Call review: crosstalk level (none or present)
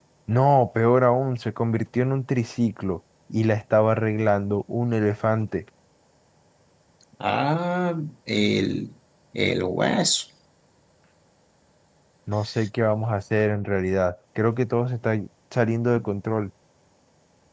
none